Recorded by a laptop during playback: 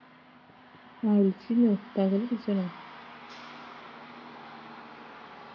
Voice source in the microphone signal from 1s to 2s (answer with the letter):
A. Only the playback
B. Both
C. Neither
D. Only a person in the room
D